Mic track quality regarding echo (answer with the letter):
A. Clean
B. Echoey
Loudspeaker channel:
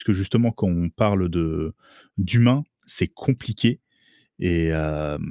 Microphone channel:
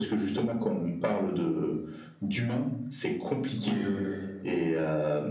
B